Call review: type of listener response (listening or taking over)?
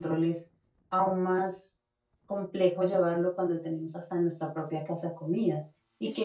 listening